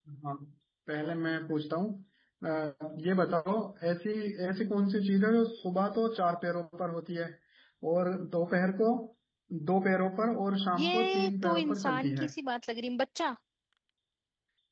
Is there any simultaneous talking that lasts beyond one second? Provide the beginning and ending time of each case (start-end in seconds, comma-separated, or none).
10.7-12.3